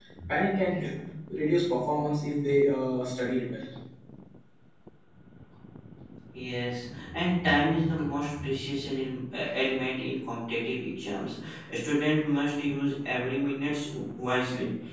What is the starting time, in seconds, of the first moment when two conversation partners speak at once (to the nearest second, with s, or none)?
none